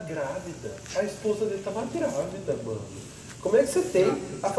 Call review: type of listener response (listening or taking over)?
listening